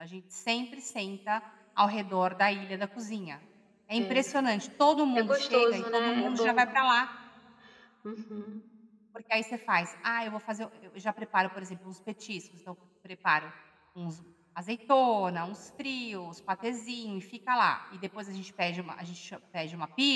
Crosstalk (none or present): present